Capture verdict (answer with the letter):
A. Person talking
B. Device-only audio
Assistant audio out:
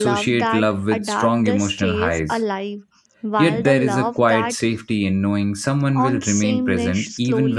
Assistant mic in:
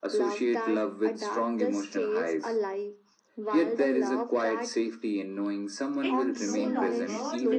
A